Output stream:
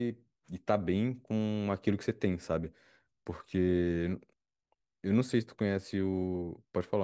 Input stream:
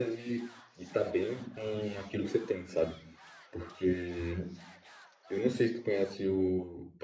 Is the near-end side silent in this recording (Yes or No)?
Yes